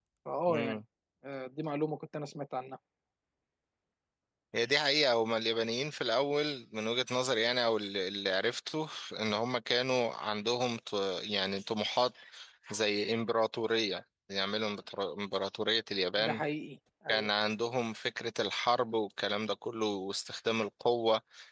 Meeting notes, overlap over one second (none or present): none